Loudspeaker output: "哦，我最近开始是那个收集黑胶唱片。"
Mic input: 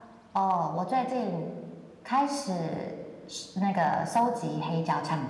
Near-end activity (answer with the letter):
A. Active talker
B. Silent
B